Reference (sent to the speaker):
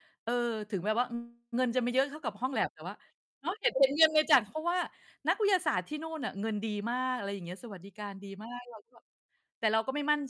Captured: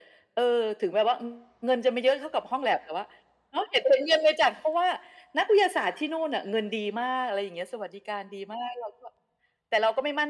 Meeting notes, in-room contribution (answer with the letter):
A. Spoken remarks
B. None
B